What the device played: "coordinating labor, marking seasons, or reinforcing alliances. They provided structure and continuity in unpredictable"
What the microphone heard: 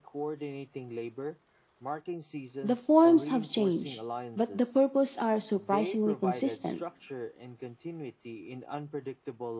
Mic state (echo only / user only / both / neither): both